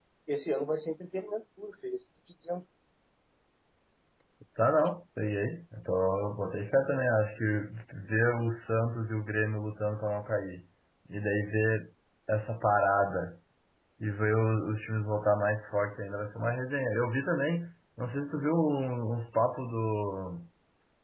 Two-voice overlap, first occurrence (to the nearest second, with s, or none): none